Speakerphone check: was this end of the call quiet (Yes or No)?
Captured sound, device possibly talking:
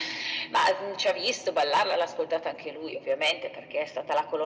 Yes